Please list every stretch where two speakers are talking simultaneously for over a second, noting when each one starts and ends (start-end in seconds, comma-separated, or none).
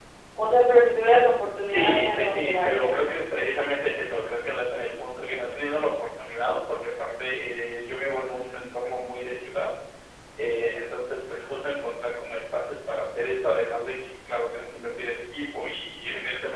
1.6-2.9